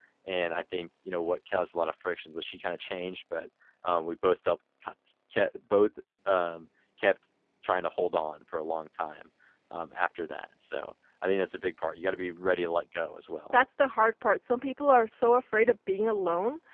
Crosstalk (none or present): none